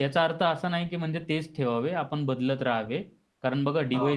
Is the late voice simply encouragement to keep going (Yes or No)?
Yes